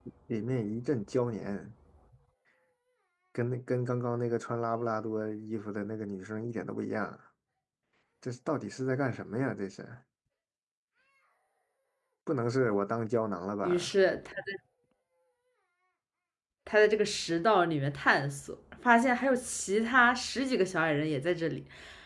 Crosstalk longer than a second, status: none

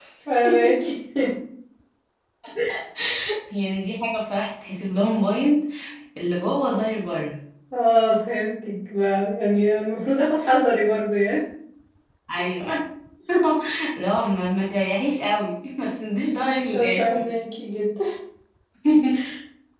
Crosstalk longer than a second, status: none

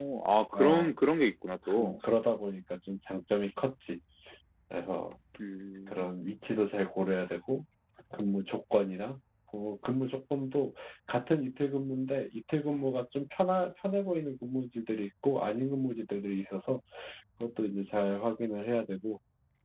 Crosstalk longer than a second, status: none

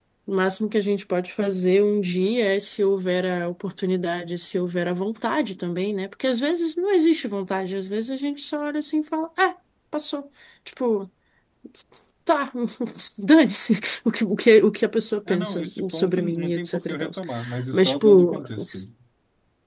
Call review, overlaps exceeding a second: present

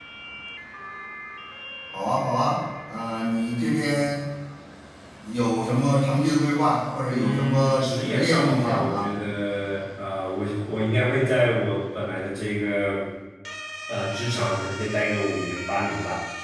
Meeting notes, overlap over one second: present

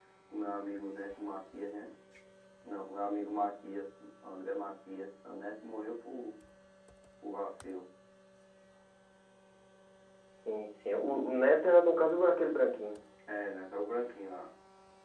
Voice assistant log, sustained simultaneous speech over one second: none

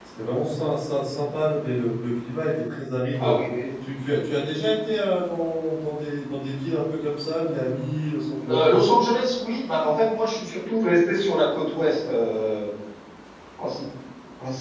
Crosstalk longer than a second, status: none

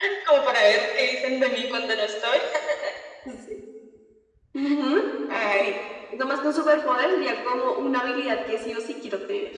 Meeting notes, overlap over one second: none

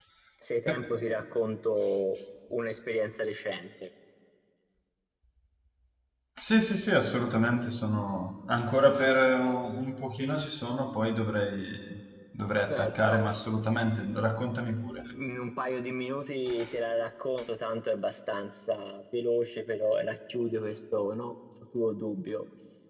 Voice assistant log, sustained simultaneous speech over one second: none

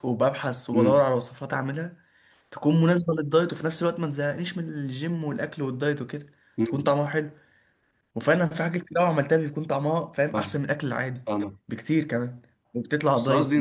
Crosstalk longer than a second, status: none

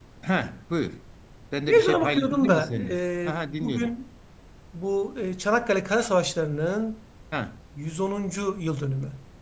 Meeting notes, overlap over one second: present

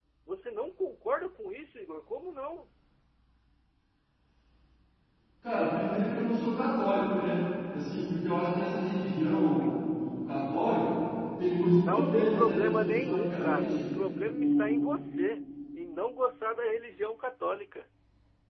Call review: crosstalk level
present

